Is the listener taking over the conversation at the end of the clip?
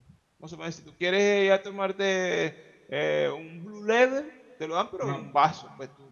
No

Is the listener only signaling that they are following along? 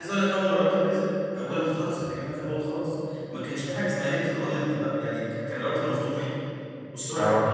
Yes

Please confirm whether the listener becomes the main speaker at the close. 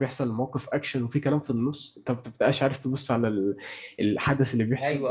No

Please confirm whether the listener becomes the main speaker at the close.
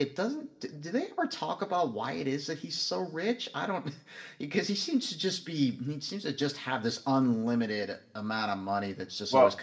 No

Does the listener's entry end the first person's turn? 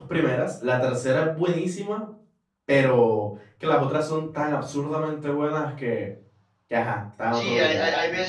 Yes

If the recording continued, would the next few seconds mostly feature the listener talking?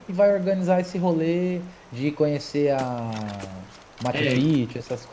Yes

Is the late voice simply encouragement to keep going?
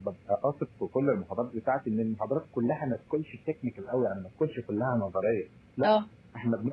Yes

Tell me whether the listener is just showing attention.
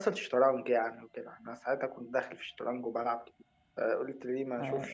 No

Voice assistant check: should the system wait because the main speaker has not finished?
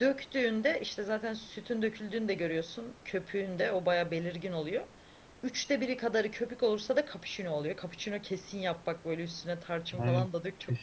No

